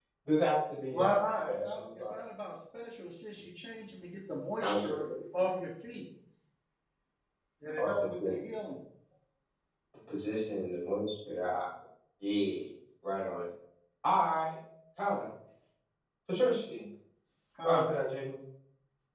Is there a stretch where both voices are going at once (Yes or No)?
Yes